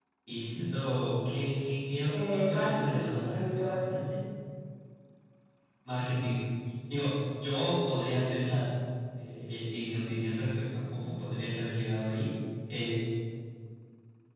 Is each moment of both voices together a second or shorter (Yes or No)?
No